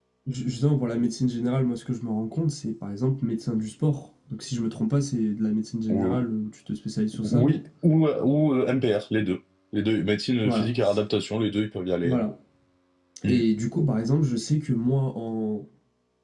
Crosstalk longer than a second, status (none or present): none